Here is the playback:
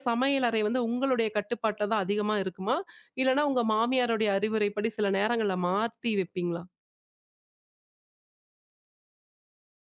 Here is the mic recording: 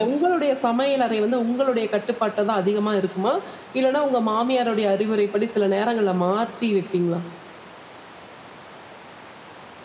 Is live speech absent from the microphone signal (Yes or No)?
Yes